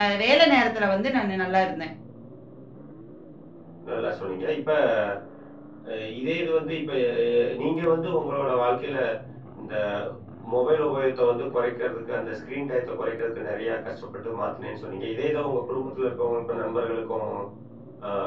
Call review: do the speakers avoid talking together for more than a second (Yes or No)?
Yes